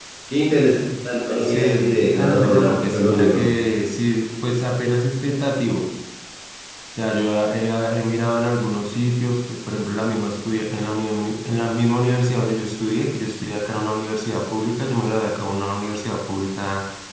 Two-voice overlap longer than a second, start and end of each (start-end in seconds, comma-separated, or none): 1.4-3.4